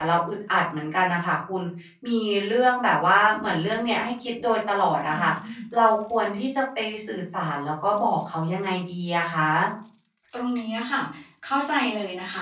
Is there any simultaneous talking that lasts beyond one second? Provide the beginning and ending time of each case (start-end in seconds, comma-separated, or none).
none